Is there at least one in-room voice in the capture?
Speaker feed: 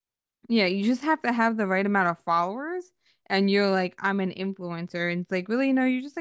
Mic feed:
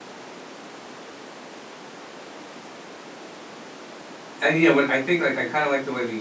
Yes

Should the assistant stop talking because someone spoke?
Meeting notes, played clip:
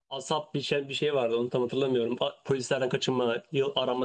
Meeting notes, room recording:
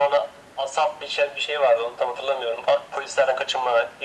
No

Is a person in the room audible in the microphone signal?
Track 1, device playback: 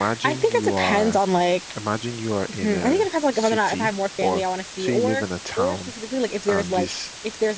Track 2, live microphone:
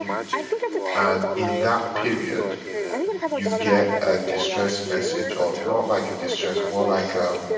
Yes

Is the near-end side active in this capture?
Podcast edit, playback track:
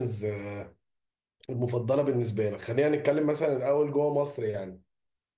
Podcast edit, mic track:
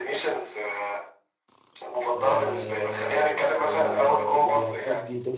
Yes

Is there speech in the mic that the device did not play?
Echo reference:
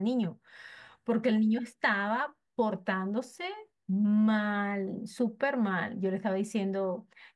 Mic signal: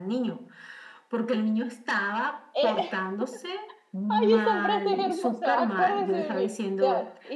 Yes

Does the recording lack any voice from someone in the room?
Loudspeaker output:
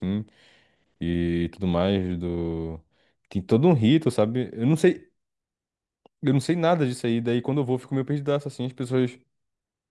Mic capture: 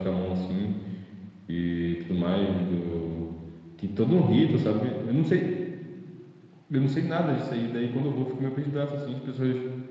Yes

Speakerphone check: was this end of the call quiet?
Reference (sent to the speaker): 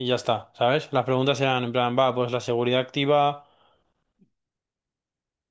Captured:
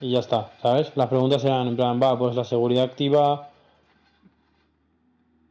Yes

